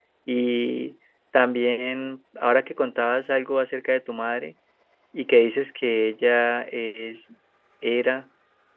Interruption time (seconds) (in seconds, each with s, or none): none